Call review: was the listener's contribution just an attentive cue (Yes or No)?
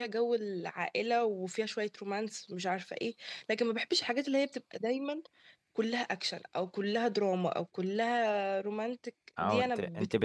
No